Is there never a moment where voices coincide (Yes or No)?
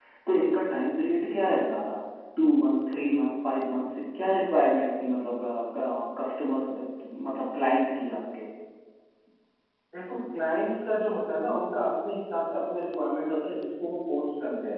Yes